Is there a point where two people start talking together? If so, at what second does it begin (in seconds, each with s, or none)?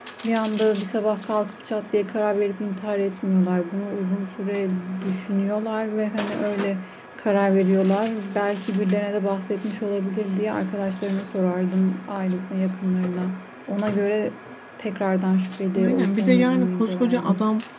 15.8 s